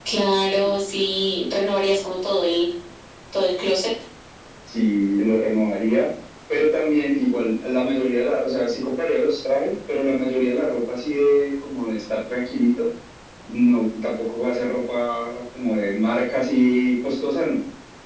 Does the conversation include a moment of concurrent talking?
No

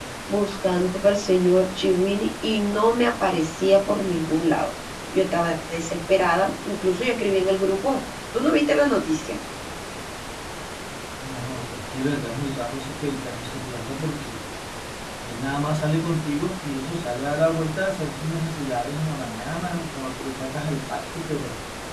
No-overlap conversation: Yes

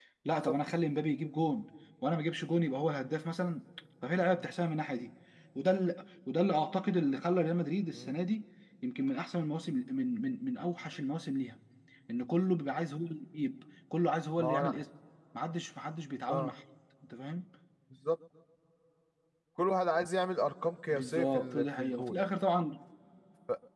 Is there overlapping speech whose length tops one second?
Yes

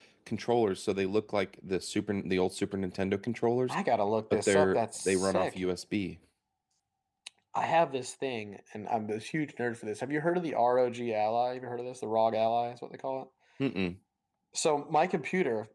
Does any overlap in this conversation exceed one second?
Yes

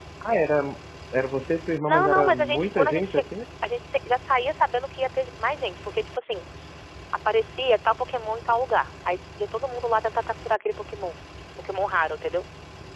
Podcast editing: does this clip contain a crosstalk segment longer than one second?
Yes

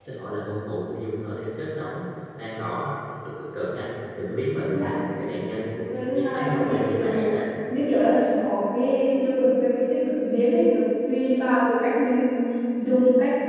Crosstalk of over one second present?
Yes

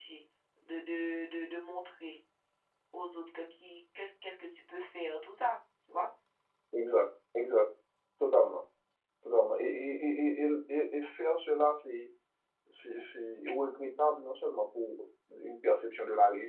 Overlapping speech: No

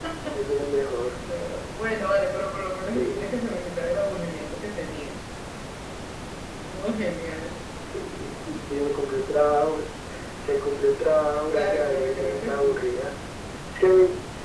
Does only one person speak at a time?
No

